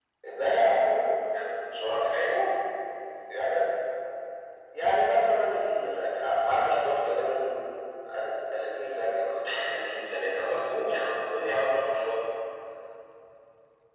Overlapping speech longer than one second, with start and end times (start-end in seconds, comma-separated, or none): none